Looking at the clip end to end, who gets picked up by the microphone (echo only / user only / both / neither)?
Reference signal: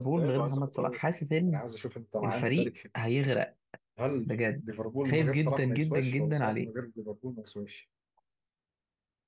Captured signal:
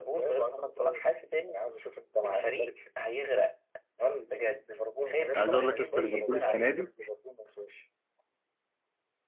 both